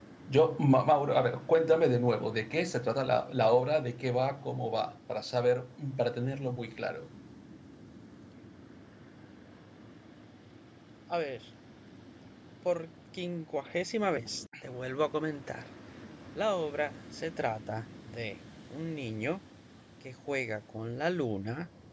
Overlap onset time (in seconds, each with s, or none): none